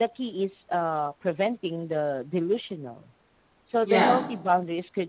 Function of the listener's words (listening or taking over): listening